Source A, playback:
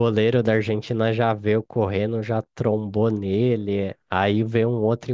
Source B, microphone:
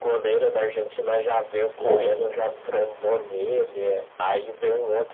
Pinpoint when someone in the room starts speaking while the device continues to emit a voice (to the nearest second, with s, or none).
2 s